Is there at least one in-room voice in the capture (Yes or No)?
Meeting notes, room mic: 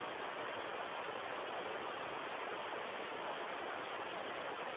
No